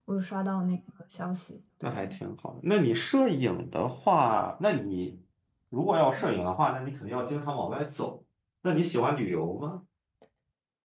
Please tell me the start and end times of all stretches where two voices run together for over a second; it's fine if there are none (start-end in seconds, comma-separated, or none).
none